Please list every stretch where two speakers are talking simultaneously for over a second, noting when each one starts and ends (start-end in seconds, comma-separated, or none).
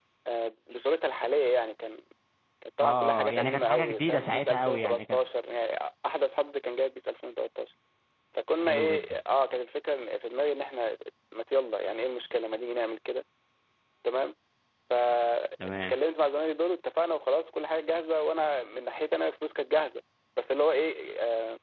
2.8-5.2